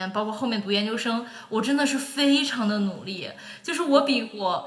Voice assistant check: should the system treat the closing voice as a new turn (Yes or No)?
No